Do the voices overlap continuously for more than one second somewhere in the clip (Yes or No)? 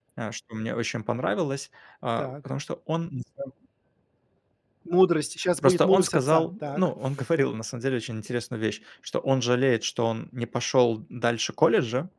Yes